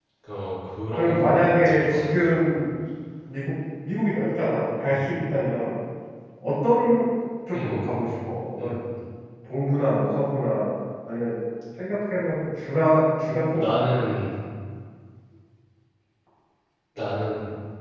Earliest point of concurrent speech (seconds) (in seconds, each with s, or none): 0.9 s